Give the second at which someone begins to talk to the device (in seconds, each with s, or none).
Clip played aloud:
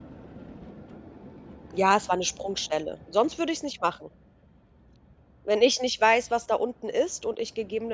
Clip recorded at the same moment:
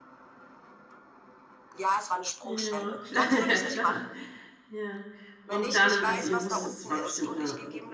2.4 s